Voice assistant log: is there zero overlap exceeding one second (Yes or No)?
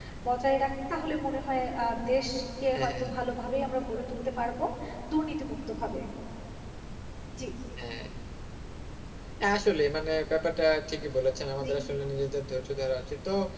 Yes